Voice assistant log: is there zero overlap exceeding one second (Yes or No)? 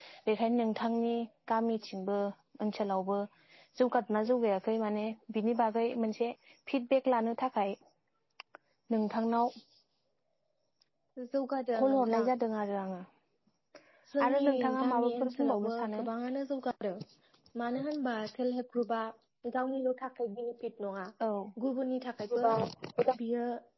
No